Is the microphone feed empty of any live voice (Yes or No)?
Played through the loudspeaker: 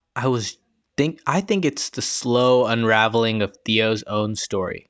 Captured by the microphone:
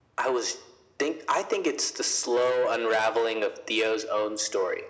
Yes